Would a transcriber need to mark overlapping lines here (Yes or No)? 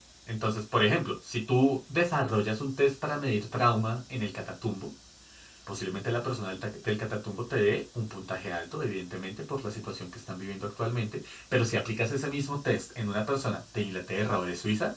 No